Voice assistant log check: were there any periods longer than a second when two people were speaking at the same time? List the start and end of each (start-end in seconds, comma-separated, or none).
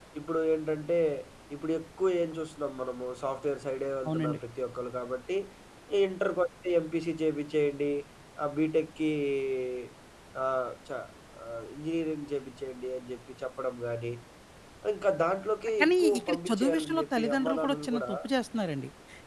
15.8-18.1